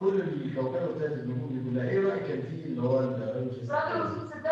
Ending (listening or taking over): taking over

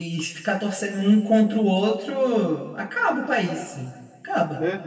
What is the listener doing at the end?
taking over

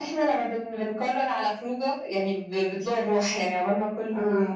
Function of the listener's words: listening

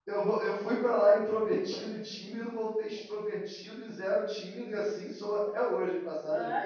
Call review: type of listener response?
taking over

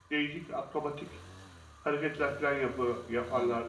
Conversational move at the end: taking over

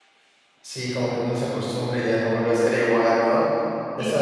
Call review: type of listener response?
listening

